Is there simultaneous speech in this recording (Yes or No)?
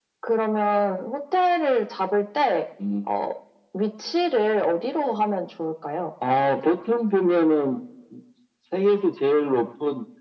No